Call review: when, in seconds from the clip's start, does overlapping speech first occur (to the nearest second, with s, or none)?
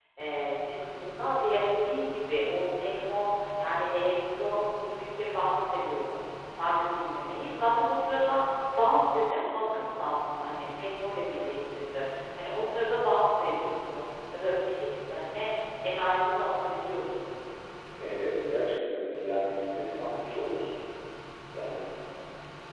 none